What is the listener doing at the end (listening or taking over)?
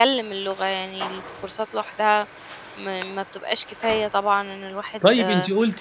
taking over